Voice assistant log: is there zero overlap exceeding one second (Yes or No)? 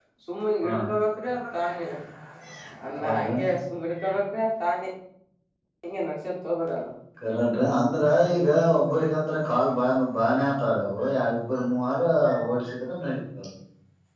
Yes